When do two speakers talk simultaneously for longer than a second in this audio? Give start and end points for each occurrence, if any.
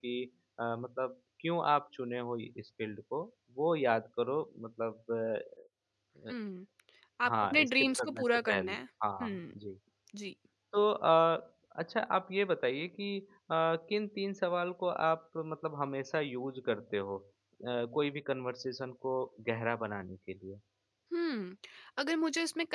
7.3-8.8

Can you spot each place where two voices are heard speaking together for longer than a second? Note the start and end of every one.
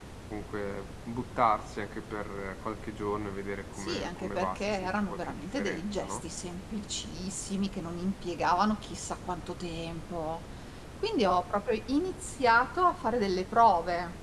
3.8-6.2

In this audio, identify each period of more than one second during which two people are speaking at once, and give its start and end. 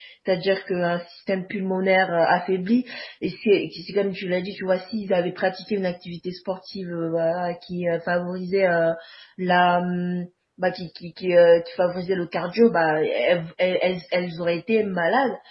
none

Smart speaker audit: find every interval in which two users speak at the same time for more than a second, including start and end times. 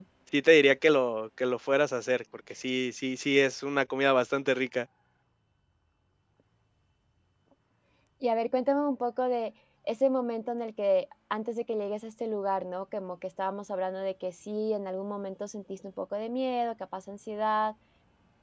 none

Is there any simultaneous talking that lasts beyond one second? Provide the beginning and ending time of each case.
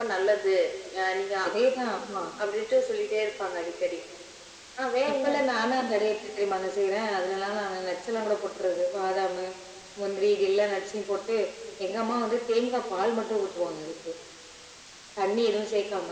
none

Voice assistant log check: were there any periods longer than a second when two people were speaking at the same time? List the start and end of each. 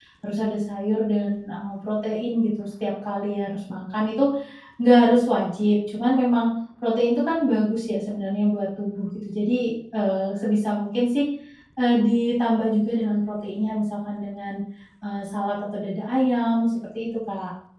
none

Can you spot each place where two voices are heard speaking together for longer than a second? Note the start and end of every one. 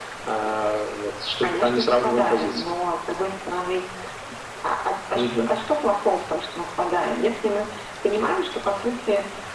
1.4-2.7

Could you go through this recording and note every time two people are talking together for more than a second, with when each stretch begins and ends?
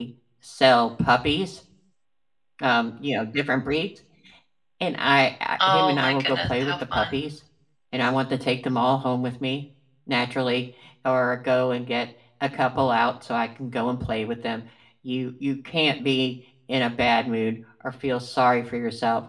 5.7-7.1

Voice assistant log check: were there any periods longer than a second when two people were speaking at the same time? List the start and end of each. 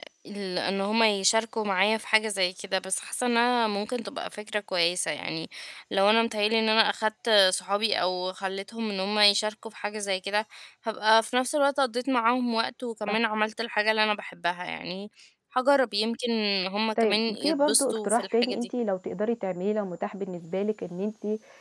17.0-18.7

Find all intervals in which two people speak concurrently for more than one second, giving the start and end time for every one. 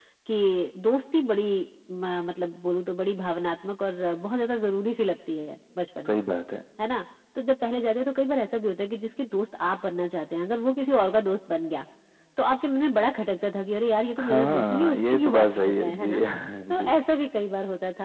14.2-16.2

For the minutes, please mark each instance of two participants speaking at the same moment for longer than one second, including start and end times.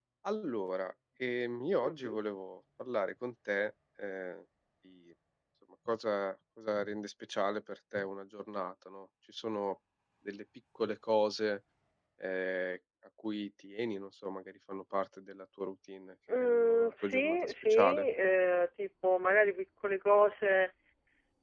16.3-18.0

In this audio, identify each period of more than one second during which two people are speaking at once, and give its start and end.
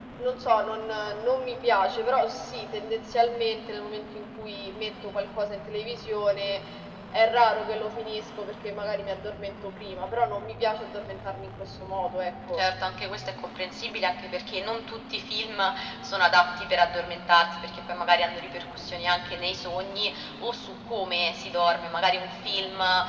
none

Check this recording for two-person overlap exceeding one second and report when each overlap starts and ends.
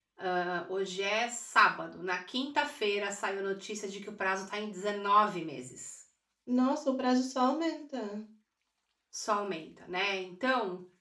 none

